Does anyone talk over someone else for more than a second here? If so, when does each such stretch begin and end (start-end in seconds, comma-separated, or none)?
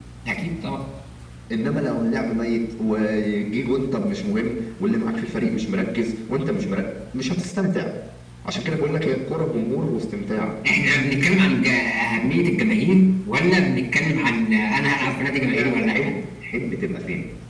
14.9-16.1